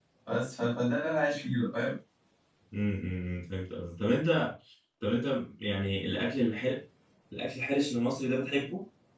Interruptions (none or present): none